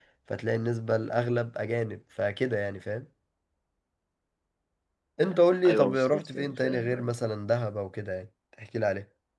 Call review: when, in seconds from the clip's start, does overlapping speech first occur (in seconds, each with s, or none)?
5.7 s